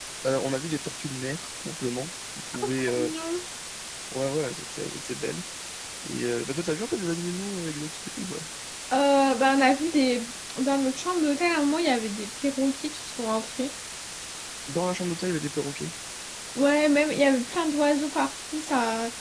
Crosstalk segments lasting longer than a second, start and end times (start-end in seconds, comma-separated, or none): none